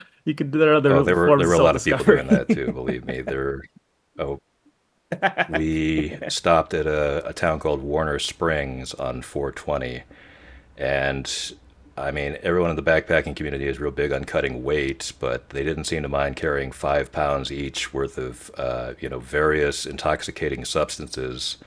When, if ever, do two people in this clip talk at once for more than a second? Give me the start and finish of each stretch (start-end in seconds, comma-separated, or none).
0.9-2.6